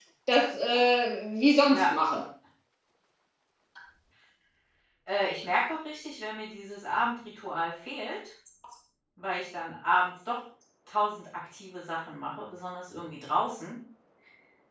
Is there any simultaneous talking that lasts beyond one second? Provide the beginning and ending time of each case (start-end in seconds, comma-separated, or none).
none